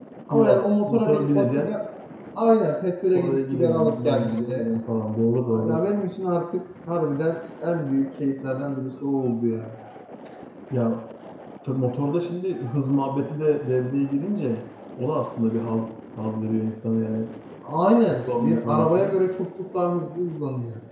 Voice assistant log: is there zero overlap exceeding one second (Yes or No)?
No